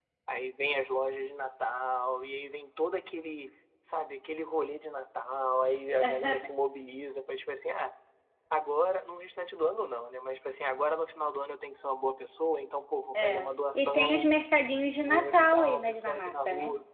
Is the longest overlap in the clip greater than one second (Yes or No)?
Yes